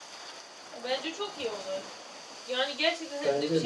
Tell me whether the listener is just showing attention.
Yes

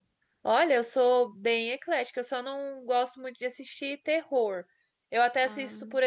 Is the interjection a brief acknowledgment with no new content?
Yes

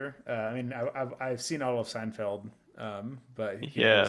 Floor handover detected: Yes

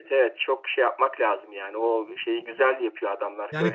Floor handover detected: Yes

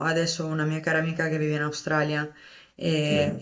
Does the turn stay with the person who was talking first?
Yes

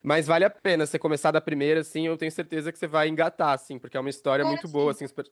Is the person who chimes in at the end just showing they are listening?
Yes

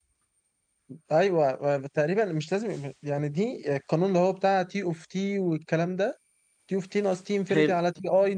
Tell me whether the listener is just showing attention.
Yes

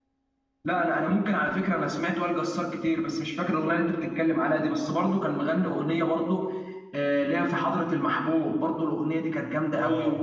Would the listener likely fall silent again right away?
No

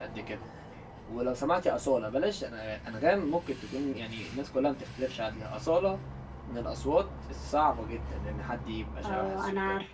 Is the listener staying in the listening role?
No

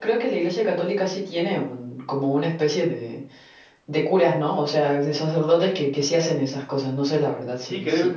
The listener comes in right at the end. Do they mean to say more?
Yes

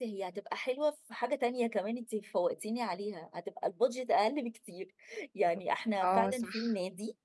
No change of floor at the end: Yes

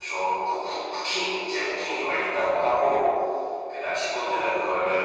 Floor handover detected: No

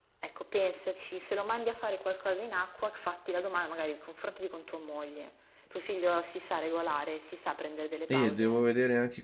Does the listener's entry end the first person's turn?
Yes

